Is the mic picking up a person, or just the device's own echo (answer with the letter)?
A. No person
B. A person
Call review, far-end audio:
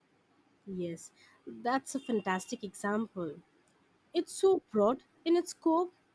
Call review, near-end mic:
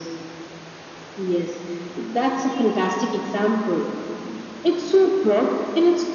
A